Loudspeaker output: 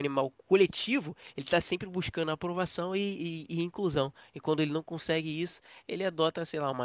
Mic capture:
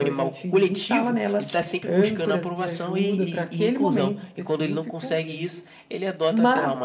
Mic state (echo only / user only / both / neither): both